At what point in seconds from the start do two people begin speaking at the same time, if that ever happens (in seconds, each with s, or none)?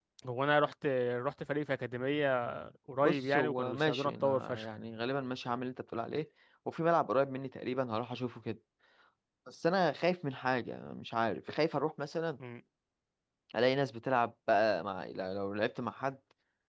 3.0 s